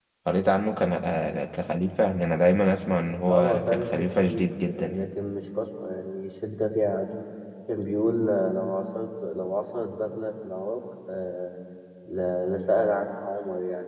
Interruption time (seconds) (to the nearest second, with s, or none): 3 s